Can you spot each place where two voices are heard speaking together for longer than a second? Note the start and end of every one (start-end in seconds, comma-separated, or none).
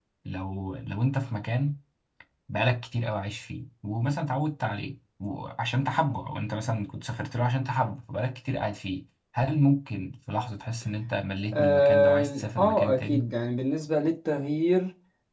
11.5-13.3